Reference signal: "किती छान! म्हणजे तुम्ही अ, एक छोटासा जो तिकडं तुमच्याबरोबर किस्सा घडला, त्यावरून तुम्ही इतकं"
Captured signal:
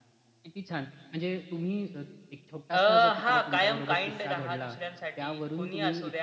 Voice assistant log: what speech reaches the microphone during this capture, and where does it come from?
both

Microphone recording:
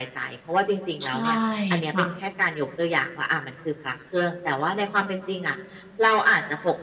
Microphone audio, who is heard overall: both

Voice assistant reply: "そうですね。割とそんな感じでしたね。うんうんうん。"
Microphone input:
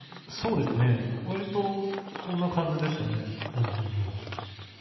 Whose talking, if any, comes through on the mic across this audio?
echo only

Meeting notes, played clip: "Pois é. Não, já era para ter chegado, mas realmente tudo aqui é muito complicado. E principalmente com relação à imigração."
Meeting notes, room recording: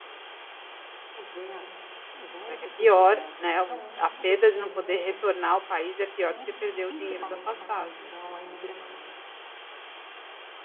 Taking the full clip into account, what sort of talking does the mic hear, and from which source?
both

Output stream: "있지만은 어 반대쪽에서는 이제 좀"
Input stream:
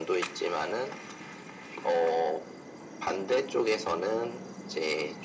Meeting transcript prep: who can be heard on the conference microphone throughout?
echo only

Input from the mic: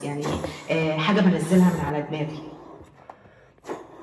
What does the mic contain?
echo only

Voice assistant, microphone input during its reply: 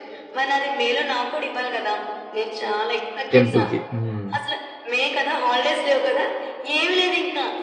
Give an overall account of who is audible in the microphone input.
both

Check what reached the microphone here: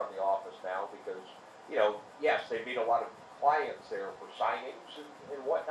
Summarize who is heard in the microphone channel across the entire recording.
echo only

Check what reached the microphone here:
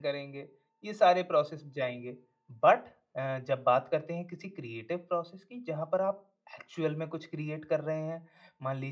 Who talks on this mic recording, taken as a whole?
user only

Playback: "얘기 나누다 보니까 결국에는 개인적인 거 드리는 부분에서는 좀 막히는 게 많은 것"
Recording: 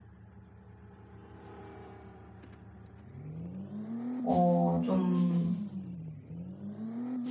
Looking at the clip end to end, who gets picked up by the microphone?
user only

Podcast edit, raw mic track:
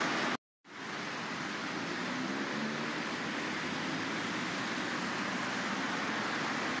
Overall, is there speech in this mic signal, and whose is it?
neither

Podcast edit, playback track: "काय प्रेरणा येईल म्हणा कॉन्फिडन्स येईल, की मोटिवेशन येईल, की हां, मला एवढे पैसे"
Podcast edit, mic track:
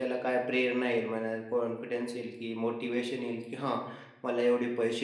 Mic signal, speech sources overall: echo only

